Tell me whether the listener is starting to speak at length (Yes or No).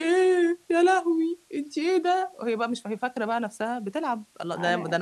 No